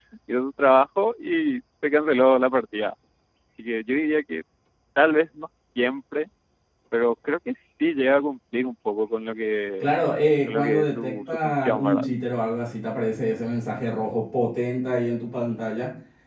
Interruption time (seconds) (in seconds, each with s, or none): 10.5 s